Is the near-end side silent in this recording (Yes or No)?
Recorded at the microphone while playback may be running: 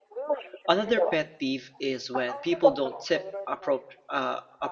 No